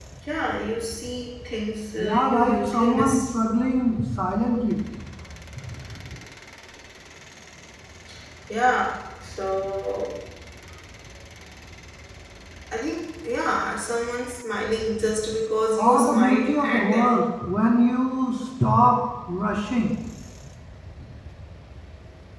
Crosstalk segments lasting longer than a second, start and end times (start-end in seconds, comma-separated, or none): 2.0-3.2, 15.8-17.1